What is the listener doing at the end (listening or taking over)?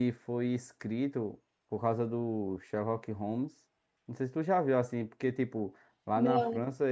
listening